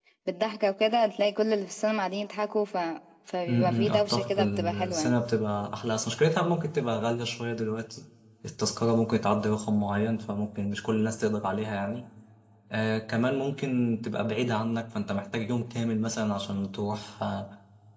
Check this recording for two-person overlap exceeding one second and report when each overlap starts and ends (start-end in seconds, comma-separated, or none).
3.5-5.1